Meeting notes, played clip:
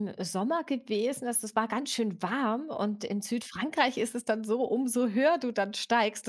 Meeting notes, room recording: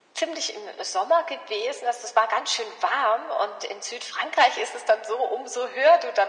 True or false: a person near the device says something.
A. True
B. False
B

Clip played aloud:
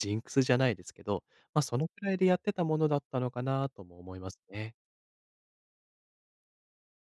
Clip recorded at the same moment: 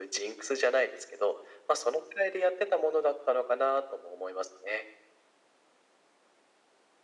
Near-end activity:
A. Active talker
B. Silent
B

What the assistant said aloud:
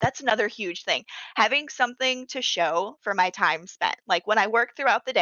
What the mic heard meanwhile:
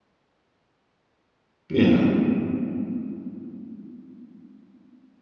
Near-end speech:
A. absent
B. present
B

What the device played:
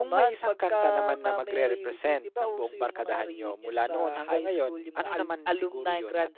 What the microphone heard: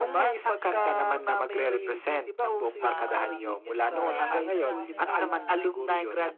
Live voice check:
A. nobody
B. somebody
B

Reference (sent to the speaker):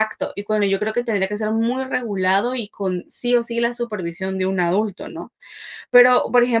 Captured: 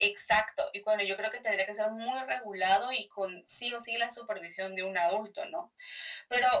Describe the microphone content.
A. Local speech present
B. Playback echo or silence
B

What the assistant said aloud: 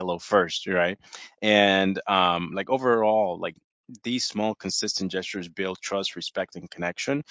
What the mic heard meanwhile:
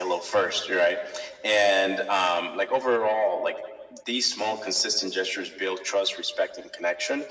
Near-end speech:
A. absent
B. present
A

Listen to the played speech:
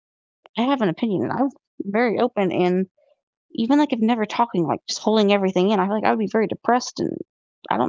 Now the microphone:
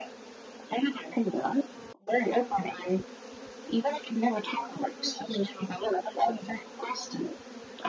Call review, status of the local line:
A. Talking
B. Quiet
B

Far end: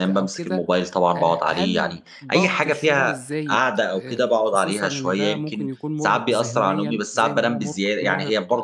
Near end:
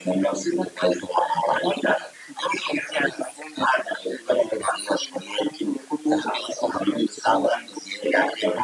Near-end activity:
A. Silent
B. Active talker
A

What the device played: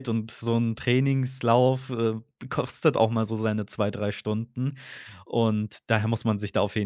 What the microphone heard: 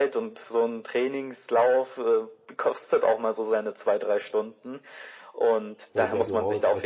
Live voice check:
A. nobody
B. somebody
B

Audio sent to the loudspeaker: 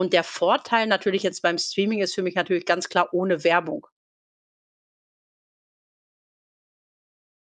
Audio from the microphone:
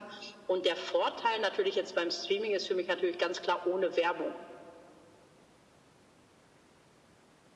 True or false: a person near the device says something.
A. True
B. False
B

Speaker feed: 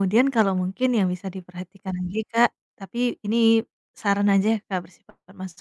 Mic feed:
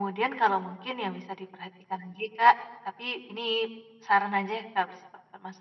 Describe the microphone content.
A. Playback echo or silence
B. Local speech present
A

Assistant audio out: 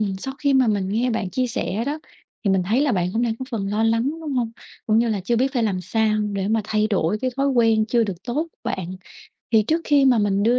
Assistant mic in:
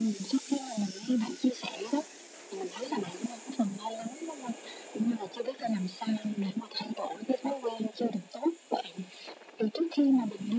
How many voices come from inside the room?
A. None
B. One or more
A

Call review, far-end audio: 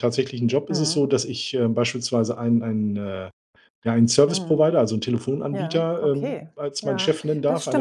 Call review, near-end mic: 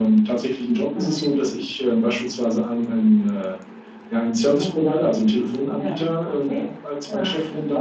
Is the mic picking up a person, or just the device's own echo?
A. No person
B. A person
A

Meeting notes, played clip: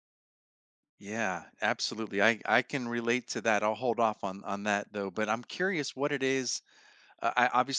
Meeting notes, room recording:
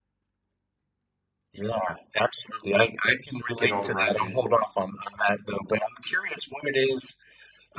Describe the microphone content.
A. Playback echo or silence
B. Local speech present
B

